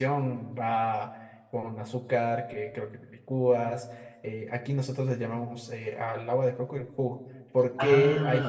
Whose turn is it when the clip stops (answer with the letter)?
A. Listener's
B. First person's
B